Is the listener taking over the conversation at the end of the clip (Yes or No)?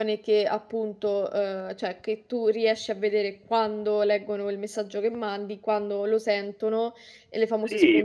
Yes